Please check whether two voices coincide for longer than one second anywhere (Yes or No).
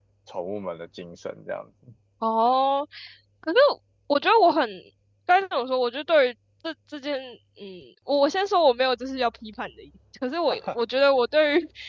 No